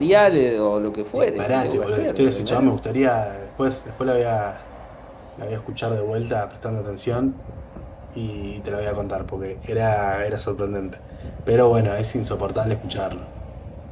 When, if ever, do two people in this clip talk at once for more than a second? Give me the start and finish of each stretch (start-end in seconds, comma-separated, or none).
1.1-2.7